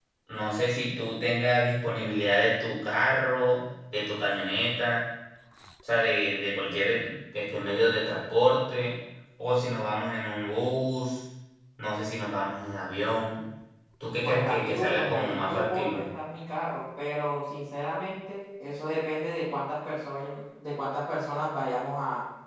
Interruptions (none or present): present